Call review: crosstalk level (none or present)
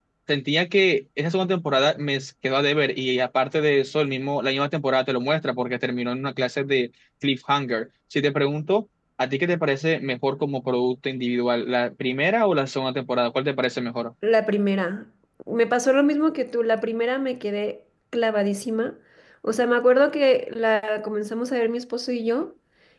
none